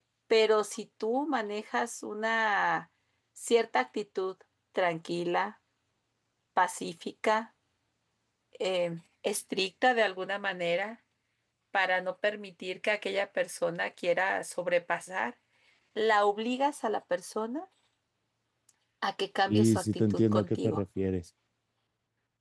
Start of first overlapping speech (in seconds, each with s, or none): 19.5 s